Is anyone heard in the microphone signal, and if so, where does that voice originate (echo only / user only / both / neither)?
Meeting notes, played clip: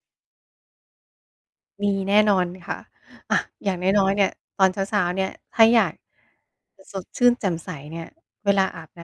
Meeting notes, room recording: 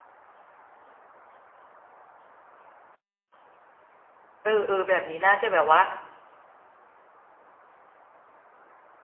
user only